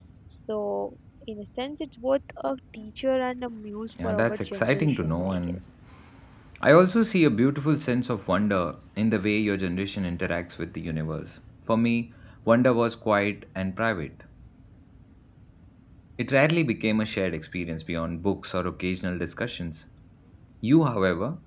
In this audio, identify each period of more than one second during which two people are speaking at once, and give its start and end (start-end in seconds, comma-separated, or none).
4.0-5.6